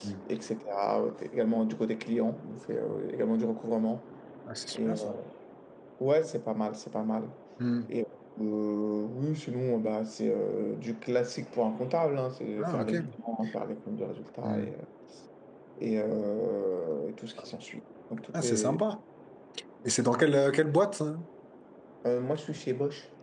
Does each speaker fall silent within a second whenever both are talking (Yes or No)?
Yes